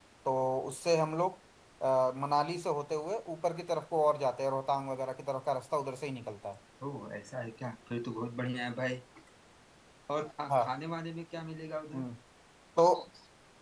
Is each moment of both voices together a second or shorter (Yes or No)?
Yes